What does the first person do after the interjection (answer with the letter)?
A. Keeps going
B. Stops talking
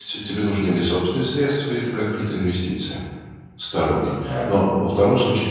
A